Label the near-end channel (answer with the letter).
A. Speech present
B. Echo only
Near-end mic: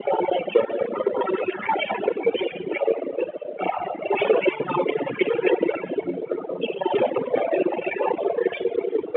B